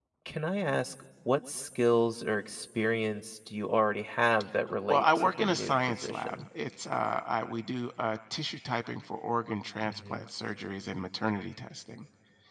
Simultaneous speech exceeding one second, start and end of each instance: 4.9-6.4

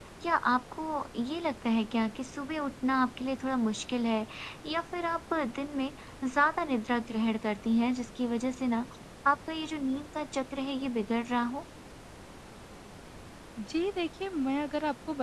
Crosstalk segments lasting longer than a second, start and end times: none

